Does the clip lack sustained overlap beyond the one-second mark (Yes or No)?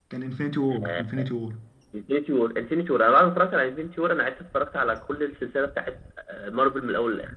Yes